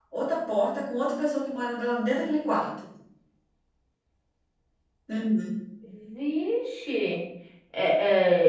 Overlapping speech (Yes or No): No